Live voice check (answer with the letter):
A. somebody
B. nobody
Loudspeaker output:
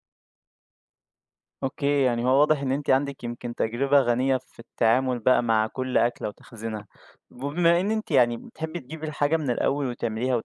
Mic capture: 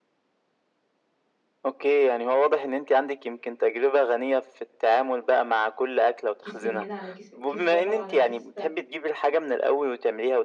A